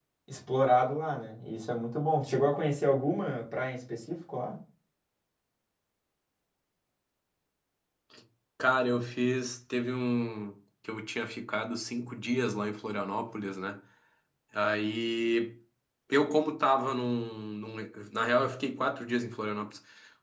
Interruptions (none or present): none